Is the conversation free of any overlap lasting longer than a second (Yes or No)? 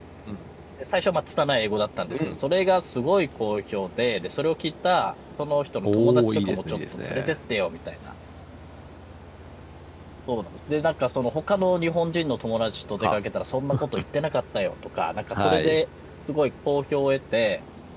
No